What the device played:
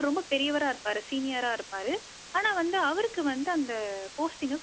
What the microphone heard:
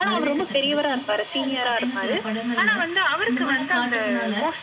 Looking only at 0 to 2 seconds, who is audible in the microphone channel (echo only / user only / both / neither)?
both